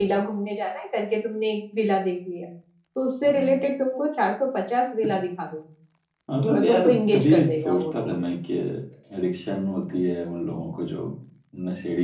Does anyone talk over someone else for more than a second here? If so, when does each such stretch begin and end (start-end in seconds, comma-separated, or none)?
6.5-8.3